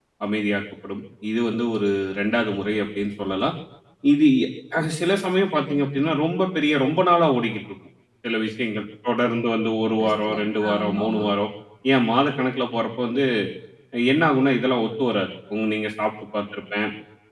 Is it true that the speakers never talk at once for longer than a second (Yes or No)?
No